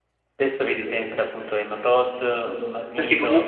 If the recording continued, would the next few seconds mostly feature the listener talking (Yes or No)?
Yes